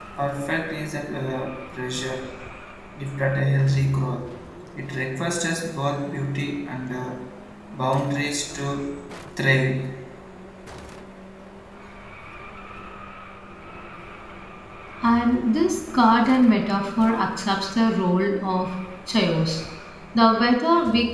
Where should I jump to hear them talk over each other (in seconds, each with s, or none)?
none